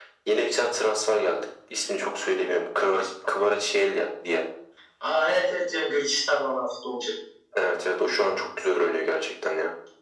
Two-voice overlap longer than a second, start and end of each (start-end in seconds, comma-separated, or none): none